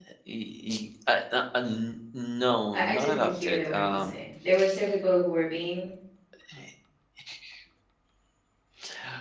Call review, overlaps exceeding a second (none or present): present